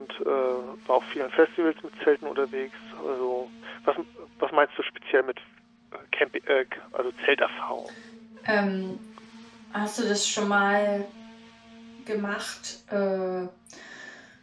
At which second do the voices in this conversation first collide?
none

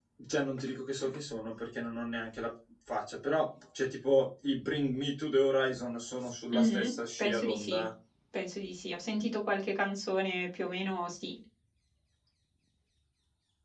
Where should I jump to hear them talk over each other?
6.5 s

